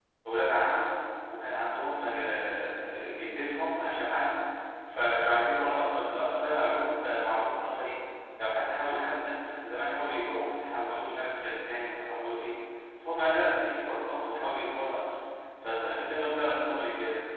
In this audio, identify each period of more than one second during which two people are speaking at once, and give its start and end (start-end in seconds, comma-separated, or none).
none